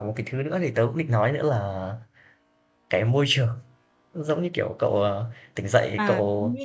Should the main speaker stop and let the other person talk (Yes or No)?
Yes